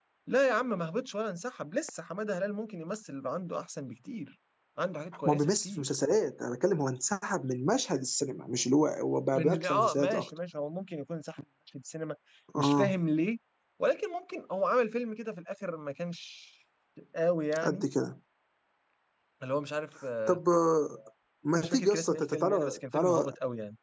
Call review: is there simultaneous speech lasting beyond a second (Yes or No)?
Yes